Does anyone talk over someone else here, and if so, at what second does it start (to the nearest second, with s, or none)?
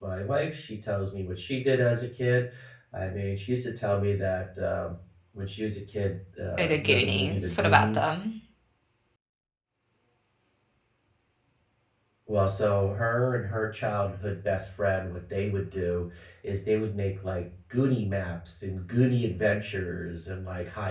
7 s